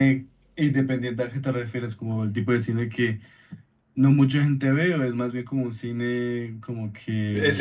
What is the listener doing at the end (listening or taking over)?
taking over